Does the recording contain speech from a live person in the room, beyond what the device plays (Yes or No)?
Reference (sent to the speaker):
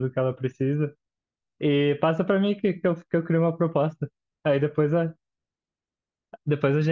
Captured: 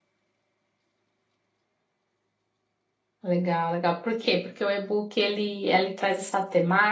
Yes